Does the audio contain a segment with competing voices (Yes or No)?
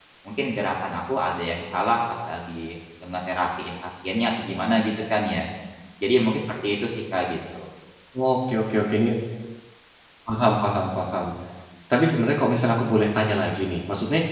No